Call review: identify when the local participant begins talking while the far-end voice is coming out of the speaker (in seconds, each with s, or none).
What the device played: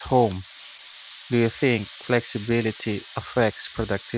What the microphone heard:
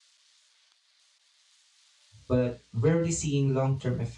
2.2 s